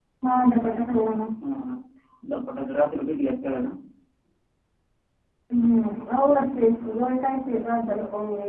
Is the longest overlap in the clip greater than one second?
No

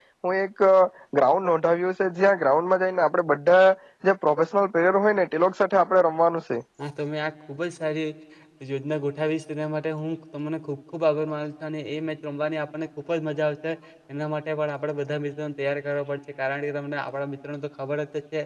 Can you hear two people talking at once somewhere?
No

